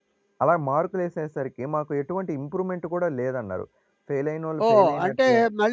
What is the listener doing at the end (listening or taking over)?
taking over